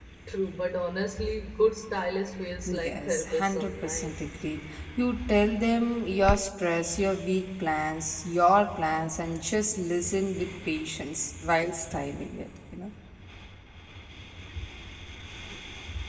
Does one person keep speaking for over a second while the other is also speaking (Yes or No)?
Yes